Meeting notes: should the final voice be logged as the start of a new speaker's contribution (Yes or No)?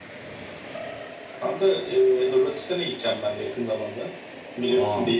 No